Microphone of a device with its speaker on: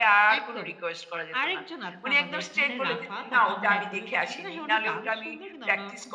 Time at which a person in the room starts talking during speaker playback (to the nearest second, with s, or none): none